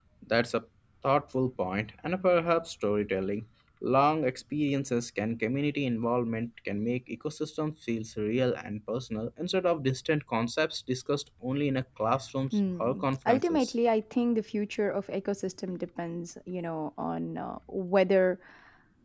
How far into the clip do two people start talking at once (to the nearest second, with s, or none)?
13 s